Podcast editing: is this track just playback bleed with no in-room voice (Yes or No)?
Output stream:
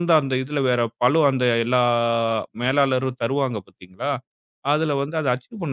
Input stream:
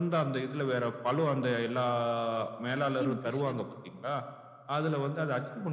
No